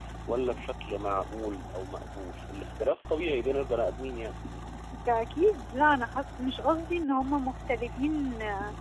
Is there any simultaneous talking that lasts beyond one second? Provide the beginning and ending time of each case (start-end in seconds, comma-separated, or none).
none